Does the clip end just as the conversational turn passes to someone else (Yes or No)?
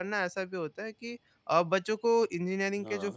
No